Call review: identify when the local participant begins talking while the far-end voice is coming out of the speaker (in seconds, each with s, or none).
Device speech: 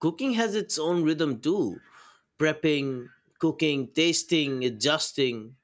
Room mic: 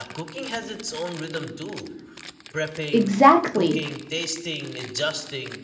2.9 s